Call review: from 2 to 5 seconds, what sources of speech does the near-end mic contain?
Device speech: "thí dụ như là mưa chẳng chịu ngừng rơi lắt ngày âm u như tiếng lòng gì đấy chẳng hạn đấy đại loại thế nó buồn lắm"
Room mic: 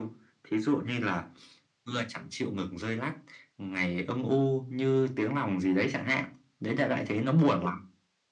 echo only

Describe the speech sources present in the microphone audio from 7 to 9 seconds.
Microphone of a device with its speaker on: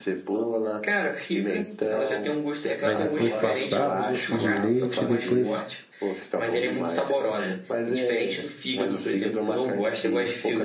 echo only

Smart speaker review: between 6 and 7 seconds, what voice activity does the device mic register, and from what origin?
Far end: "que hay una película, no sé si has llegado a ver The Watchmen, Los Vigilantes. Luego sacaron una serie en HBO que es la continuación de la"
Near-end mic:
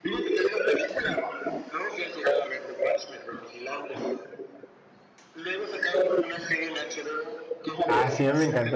echo only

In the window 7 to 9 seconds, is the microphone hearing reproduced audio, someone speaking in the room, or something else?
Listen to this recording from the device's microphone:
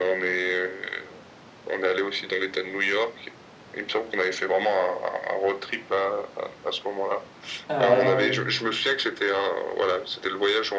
both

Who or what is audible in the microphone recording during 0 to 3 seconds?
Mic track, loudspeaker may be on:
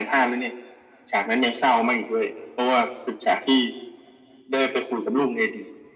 echo only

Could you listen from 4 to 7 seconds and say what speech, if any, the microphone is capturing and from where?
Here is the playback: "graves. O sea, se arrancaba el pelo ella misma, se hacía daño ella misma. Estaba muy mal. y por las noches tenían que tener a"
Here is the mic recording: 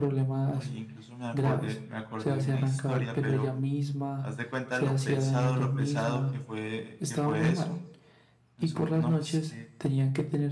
both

